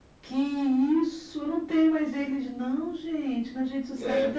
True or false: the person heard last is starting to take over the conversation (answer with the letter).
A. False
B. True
B